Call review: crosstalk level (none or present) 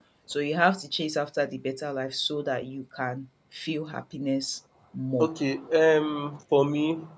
none